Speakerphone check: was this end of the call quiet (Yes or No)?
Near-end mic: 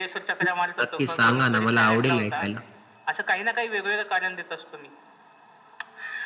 No